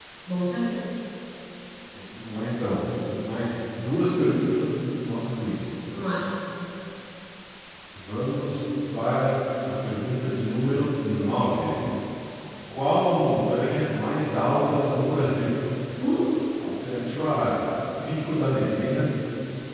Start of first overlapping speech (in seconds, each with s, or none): none